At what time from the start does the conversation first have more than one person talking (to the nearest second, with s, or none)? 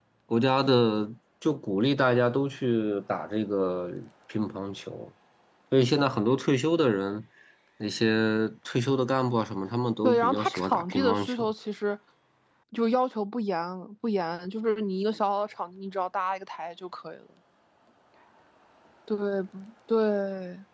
10 s